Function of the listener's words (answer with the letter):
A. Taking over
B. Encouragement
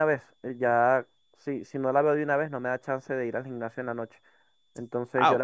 B